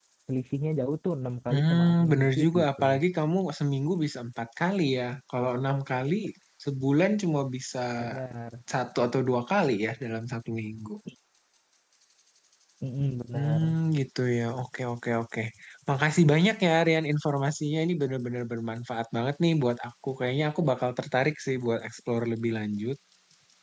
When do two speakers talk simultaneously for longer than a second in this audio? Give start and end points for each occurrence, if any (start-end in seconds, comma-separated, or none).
1.5-2.8